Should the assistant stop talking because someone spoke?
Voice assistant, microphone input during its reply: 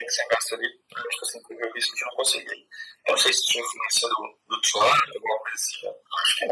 No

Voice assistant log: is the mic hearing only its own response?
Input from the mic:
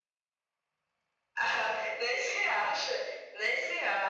Yes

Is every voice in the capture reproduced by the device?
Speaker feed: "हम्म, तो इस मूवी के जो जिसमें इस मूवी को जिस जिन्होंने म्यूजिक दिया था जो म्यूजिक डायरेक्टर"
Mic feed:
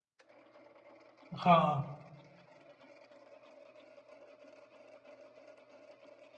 No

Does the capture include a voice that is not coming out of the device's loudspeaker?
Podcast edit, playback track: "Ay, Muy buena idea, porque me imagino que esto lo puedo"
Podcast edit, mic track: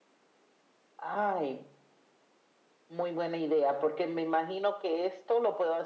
No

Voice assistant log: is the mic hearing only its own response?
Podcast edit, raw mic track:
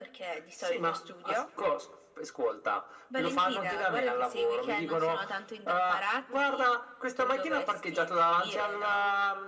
Yes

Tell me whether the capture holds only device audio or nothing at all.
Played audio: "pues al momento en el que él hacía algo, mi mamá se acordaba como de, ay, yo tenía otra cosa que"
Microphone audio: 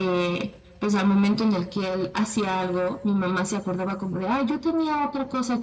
Yes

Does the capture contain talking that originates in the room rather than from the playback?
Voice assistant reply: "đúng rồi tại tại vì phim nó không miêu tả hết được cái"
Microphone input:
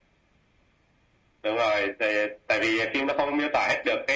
No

